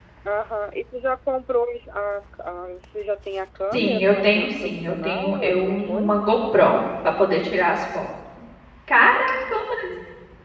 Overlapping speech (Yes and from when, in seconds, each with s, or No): Yes, from 3.7 s